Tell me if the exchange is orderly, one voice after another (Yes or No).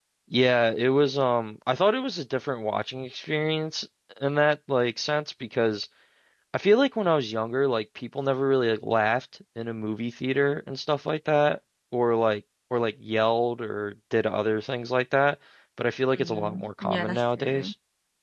No